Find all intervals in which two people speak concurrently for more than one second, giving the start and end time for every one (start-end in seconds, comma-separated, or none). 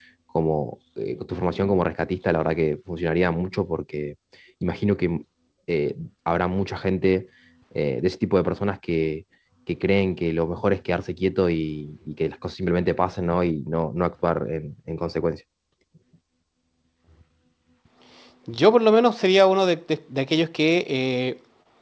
none